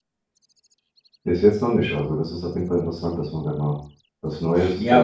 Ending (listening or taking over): taking over